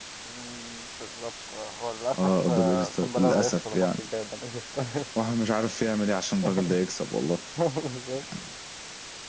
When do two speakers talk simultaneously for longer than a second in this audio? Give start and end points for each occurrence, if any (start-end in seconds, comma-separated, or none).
2.2-4.0